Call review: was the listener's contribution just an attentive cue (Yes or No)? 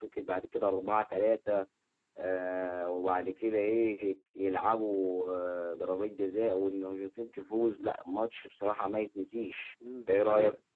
No